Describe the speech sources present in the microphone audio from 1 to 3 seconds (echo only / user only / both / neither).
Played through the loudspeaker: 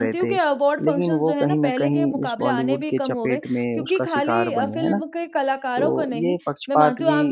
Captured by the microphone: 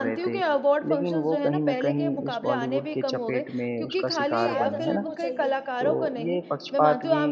echo only